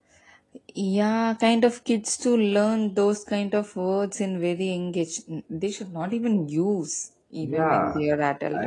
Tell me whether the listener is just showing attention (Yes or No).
No